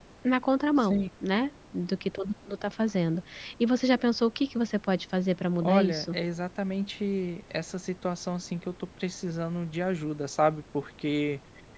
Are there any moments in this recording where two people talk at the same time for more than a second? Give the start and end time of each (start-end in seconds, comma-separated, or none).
none